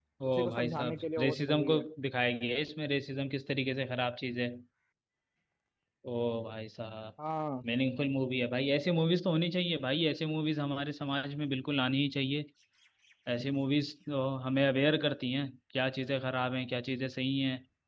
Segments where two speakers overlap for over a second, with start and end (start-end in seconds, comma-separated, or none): 0.5-1.8